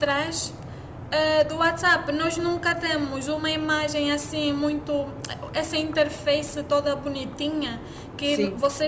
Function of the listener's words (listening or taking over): listening